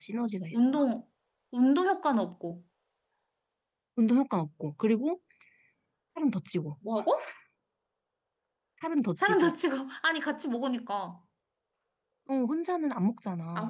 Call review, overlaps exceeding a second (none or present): none